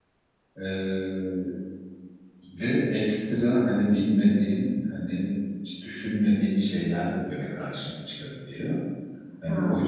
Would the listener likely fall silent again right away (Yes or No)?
Yes